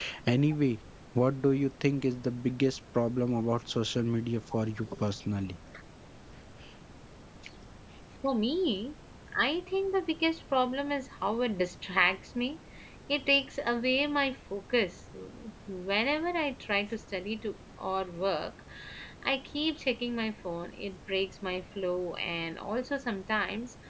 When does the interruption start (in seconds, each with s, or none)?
none